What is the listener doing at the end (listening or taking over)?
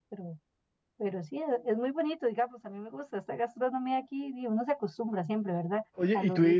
taking over